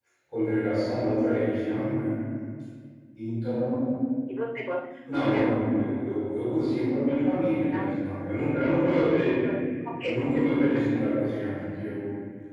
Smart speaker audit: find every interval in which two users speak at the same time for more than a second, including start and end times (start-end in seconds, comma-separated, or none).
none